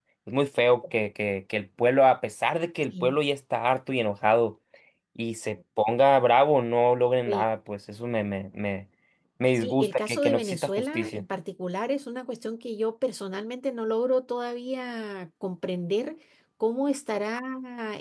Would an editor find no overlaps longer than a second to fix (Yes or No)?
No